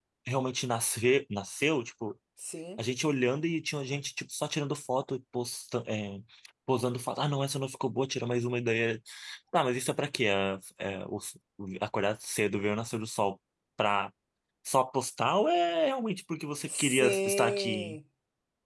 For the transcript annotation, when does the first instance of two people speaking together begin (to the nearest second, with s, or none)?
17 s